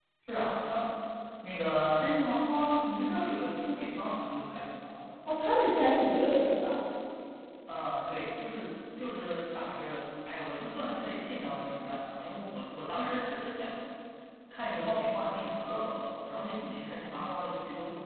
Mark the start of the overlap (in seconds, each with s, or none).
none